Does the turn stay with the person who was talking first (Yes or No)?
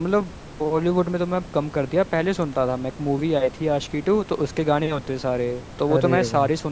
Yes